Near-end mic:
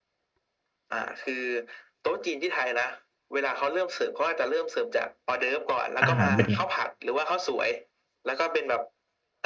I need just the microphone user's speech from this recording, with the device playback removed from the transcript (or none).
อาหารเป็นไง